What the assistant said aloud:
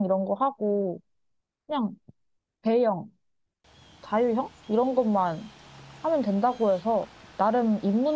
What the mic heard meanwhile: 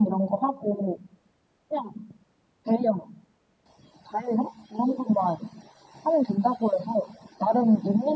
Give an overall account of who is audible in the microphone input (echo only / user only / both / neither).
echo only